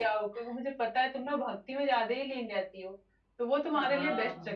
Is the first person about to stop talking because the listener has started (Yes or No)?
No